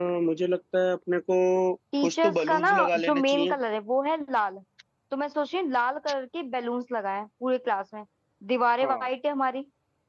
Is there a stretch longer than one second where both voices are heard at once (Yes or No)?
Yes